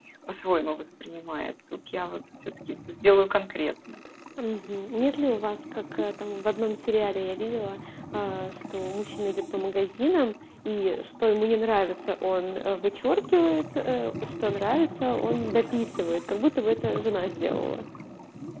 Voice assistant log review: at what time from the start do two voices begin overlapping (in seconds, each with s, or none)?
none